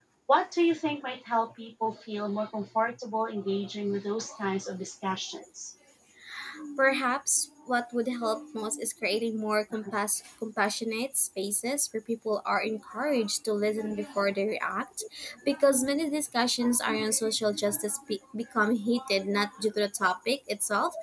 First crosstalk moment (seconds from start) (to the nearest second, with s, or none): none